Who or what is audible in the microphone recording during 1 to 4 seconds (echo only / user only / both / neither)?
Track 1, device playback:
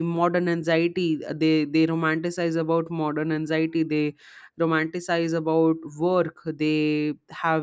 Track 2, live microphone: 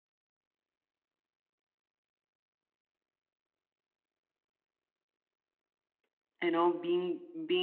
neither